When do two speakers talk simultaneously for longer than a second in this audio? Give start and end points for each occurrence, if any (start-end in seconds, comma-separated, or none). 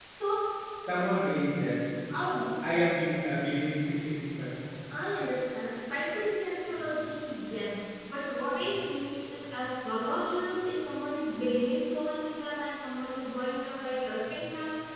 none